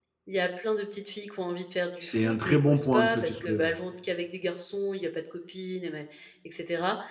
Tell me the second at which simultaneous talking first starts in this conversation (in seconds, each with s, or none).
2.0 s